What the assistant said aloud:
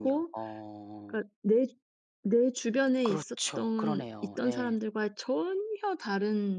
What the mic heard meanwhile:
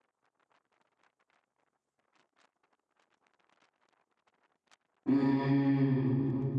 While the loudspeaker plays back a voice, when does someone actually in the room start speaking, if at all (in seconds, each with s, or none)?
5.1 s